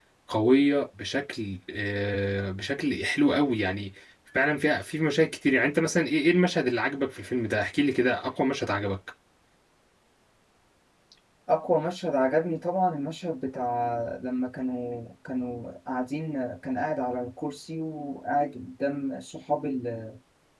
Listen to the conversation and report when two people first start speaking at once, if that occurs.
none

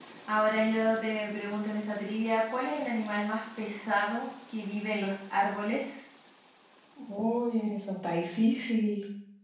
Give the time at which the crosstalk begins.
none

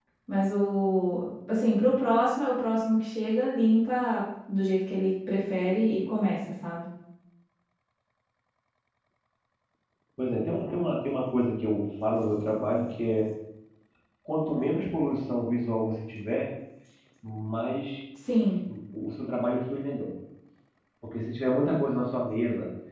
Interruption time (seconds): none

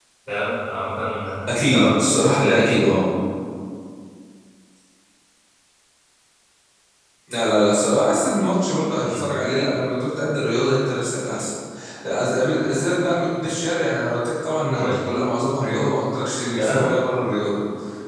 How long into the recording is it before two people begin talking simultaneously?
1 s

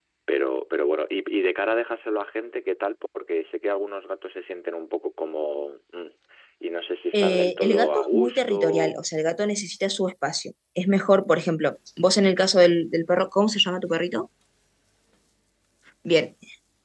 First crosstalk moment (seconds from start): 7 s

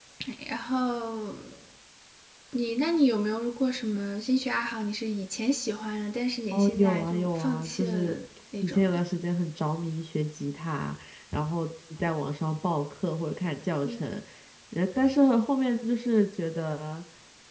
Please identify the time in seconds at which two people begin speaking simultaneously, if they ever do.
7 s

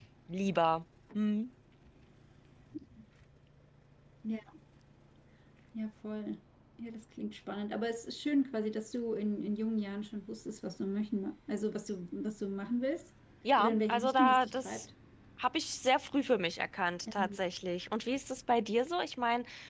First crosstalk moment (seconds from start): 14 s

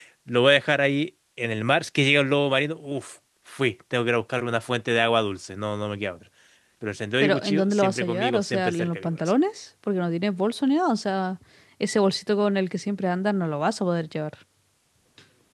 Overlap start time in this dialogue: 7 s

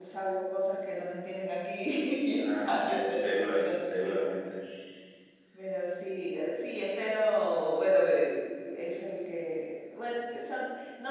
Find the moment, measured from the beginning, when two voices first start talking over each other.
2 s

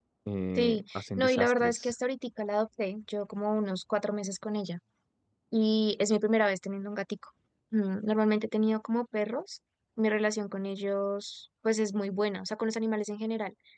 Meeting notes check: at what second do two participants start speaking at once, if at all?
1 s

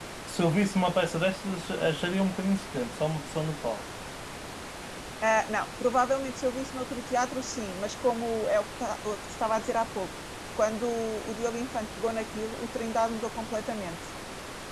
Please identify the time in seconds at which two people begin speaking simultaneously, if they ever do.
none

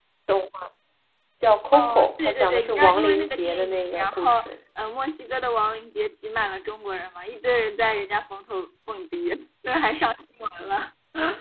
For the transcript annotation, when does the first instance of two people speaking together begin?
2 s

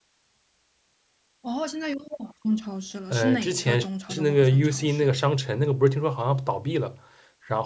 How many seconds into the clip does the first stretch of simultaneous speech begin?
3 s

